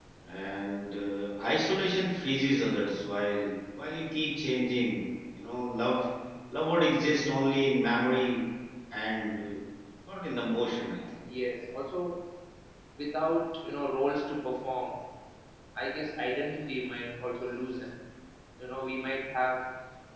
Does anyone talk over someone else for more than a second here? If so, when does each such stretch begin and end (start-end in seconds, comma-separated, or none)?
none